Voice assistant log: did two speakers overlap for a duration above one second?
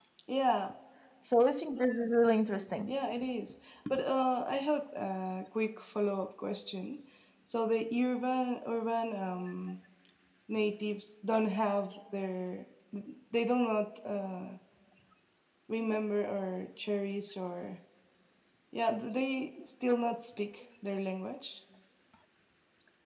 No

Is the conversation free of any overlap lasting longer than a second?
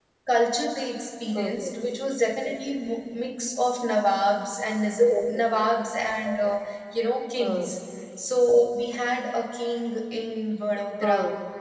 Yes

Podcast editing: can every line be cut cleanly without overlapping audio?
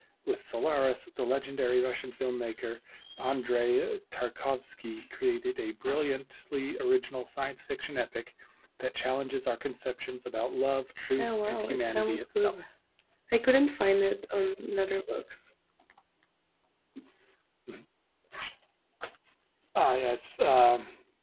No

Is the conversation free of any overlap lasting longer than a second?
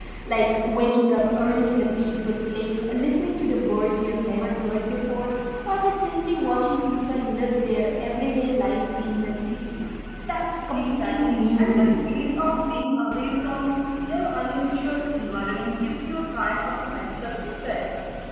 No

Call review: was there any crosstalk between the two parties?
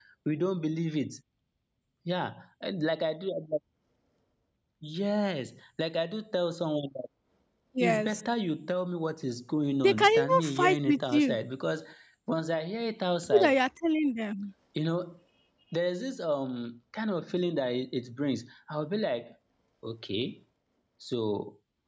Yes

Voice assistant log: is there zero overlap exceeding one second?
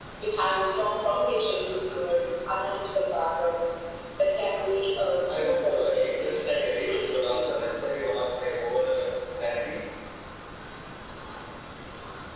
No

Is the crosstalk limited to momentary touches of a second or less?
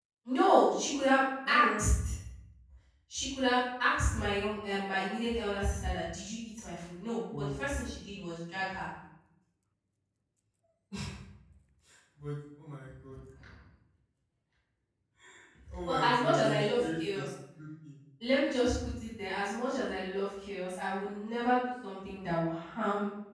No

